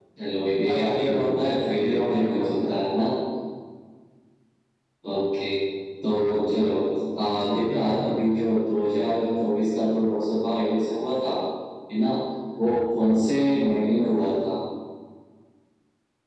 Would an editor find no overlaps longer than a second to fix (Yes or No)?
No